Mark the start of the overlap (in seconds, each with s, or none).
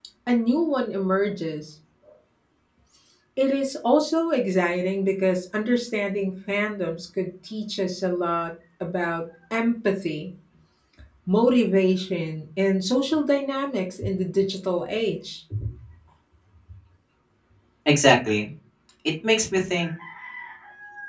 none